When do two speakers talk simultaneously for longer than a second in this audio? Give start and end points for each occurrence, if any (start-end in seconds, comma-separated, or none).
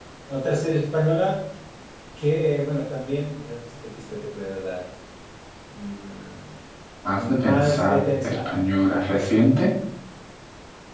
7.1-8.5